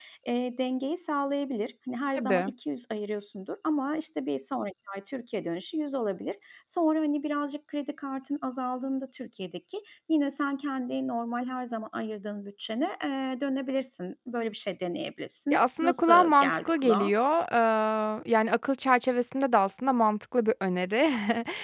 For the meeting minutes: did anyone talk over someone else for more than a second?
Yes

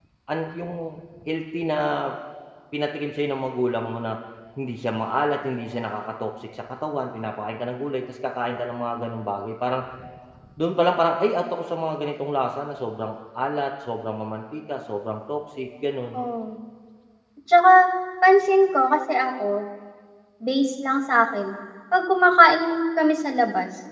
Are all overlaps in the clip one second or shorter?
Yes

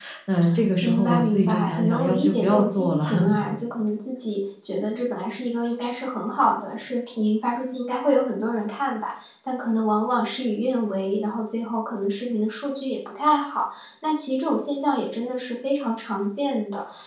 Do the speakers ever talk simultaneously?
Yes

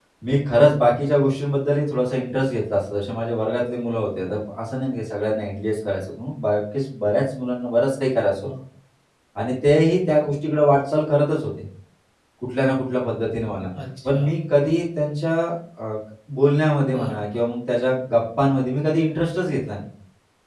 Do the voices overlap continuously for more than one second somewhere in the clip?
No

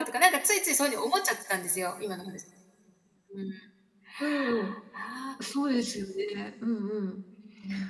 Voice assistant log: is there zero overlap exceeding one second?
Yes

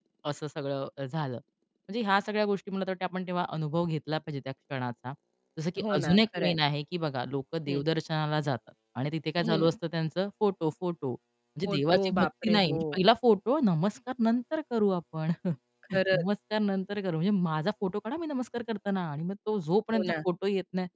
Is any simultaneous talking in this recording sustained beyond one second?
Yes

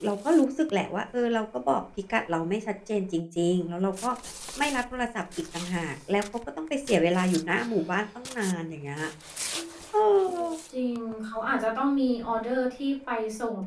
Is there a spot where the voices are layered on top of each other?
No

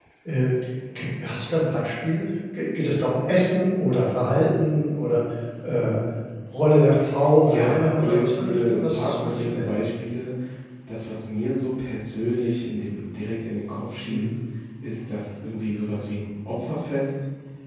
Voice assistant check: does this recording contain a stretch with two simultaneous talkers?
Yes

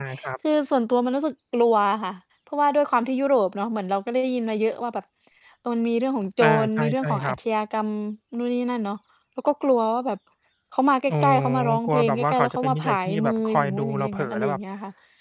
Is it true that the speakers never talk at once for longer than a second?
No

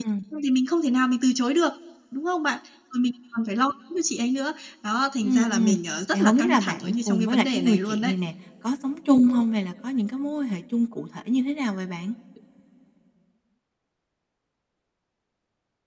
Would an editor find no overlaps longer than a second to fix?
No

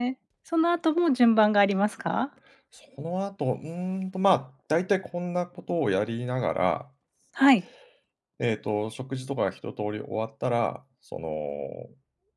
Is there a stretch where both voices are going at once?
No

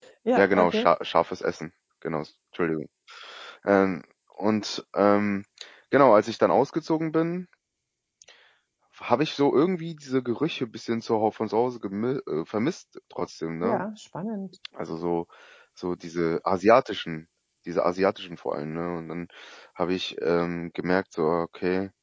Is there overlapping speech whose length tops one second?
No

